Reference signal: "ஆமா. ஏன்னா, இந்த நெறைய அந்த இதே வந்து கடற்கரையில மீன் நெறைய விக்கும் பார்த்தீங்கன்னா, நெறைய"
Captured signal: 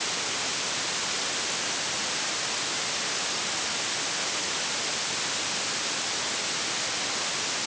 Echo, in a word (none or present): none